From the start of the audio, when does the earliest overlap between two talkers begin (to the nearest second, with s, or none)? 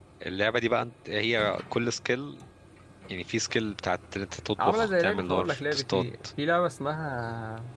5 s